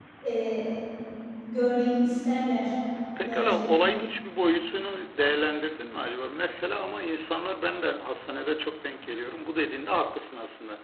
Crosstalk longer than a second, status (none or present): none